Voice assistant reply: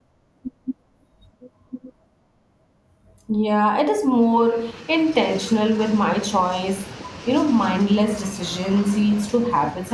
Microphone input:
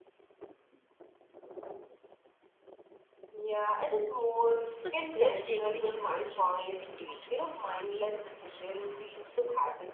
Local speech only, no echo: because growth take patience, indeed.

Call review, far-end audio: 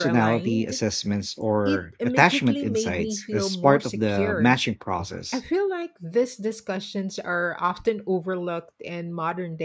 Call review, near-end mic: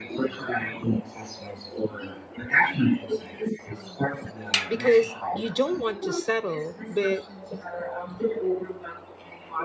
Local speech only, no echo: because you don't want to settle, but

